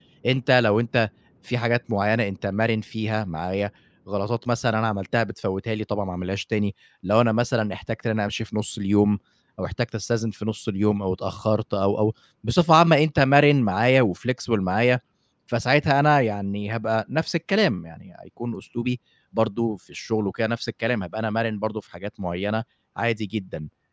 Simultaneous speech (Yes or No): No